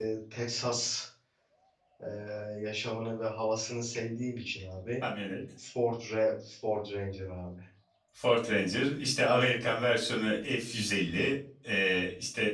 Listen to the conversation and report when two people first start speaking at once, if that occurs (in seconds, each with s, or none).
none